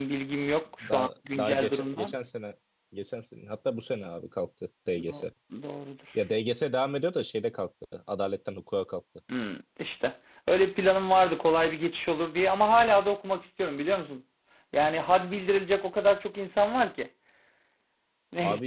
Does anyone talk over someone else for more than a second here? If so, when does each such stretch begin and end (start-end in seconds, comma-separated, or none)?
0.9-2.1